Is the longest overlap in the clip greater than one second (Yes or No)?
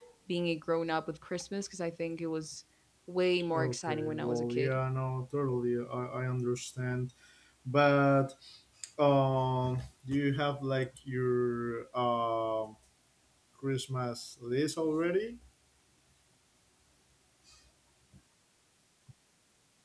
Yes